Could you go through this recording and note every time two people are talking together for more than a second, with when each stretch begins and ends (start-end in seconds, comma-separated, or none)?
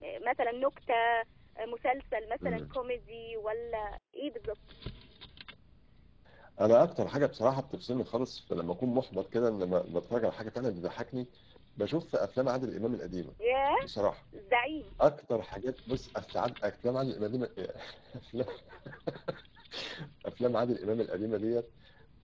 none